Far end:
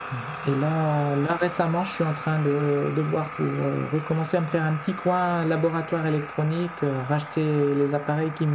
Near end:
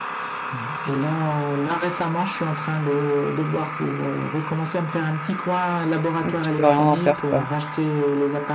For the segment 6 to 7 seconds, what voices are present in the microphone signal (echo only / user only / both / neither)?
both